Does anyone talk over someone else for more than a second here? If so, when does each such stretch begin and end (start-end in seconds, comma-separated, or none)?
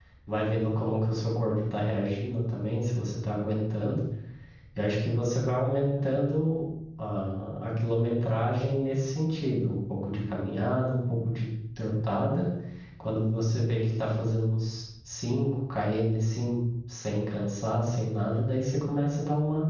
none